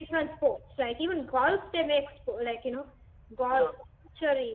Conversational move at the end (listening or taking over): listening